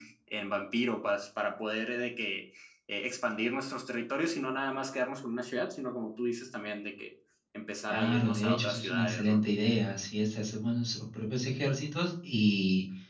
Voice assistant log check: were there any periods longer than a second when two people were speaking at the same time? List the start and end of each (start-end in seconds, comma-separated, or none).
7.9-9.4